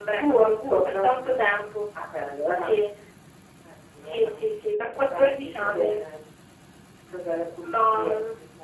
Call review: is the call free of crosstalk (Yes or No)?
No